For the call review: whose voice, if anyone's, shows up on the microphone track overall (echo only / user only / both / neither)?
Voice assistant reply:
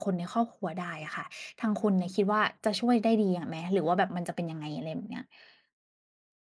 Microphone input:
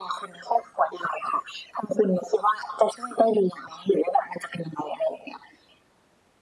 echo only